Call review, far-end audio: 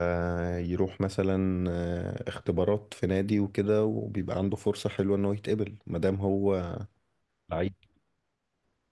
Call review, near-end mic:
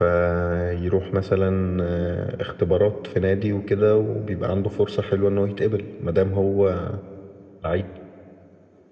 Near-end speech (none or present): none